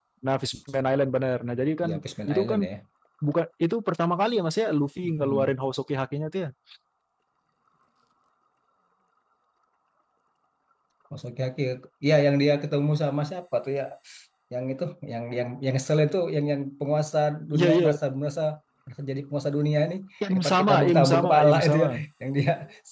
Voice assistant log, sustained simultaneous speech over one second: present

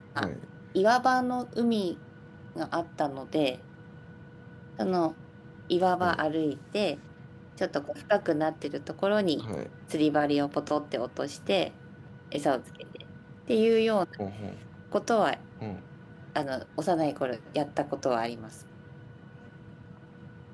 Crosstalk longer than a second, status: none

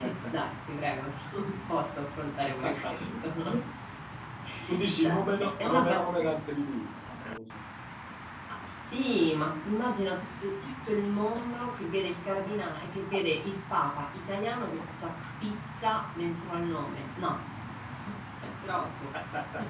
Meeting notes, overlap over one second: present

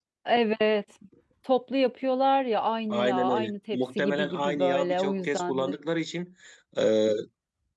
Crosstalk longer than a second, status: present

